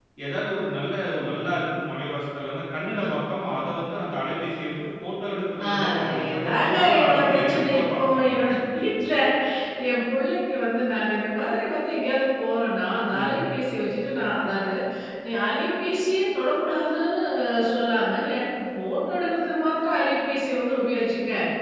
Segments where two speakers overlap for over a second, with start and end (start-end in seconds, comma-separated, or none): 5.7-8.9